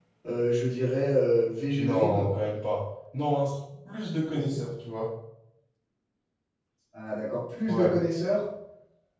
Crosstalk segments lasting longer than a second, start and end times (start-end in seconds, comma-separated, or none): none